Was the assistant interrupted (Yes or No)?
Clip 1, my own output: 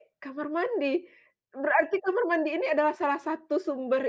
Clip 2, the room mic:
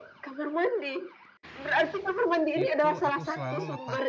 Yes